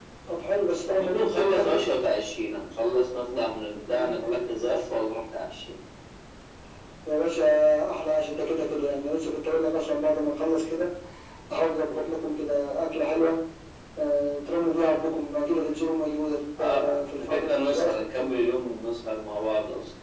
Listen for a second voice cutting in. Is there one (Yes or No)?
Yes